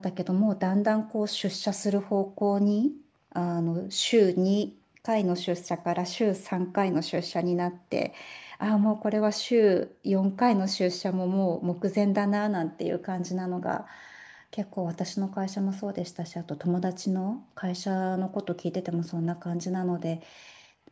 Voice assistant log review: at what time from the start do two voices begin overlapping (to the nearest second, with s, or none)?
none